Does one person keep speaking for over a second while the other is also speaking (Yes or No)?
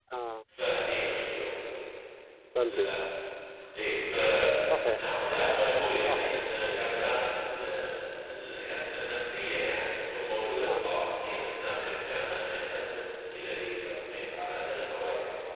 No